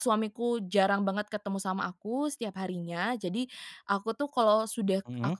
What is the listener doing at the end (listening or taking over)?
listening